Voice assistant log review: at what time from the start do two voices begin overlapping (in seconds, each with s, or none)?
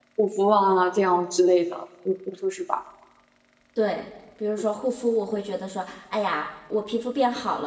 none